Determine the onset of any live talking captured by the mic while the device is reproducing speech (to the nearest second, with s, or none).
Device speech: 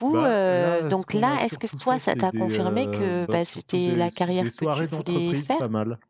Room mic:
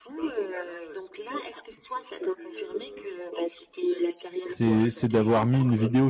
4 s